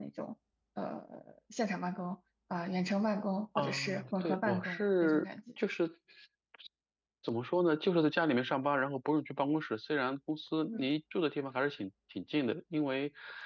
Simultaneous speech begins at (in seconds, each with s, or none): 3.5 s